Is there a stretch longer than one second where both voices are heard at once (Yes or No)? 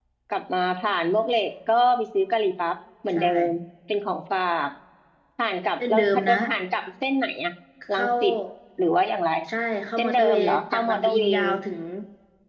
Yes